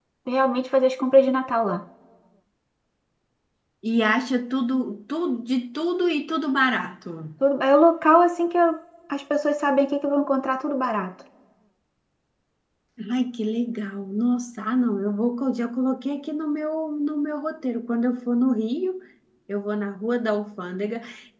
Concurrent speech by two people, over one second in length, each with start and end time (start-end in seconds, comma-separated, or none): none